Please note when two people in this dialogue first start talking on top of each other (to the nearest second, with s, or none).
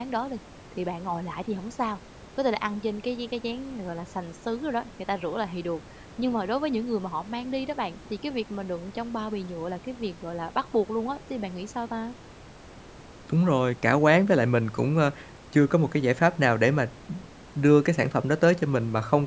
none